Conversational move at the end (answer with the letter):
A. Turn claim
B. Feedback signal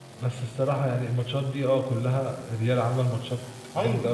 A